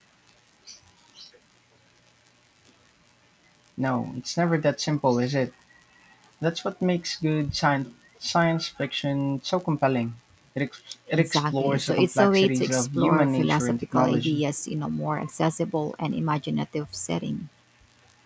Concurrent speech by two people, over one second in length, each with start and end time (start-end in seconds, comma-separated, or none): 11.2-14.4